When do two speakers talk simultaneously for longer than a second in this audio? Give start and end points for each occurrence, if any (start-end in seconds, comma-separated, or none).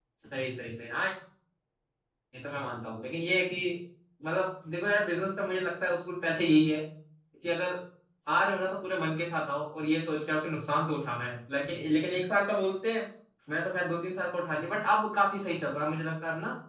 none